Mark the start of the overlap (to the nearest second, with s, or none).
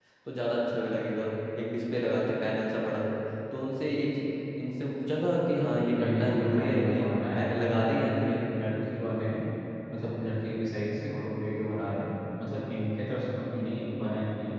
6 s